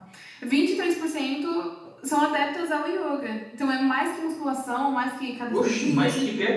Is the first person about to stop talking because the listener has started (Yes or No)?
Yes